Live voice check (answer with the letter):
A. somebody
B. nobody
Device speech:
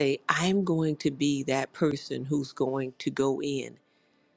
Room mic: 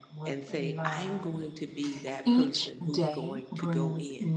A